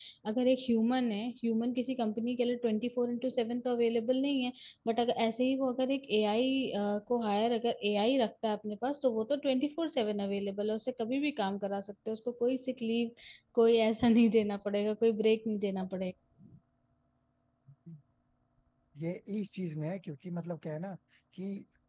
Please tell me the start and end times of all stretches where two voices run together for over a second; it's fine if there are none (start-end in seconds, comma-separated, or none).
none